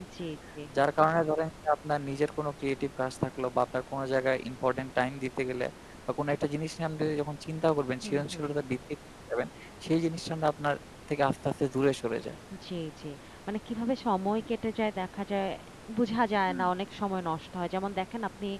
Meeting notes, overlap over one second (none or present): none